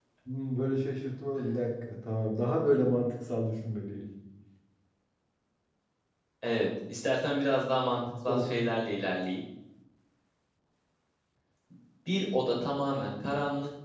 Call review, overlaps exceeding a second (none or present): none